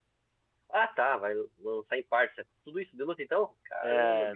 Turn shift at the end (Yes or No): Yes